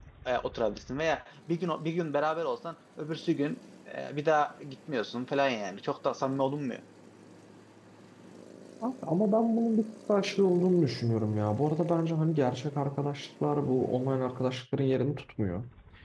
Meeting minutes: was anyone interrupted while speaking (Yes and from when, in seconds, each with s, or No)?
No